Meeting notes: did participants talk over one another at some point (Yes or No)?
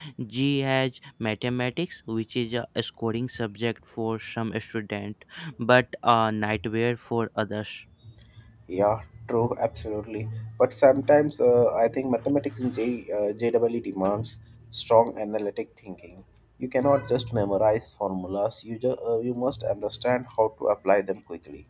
No